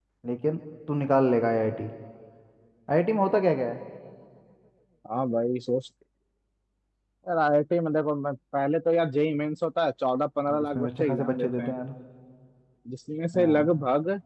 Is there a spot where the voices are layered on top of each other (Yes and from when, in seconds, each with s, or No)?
Yes, from 10.5 s